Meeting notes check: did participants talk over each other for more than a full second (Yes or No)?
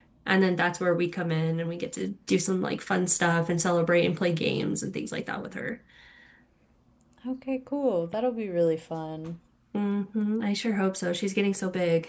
No